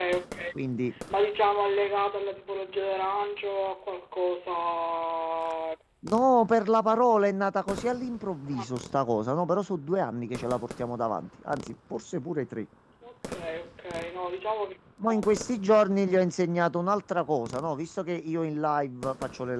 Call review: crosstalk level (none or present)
none